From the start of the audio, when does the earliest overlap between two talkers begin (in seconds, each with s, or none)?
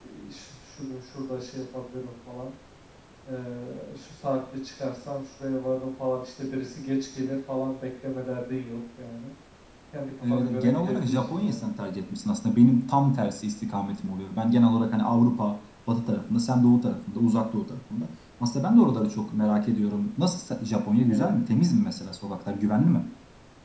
10.2 s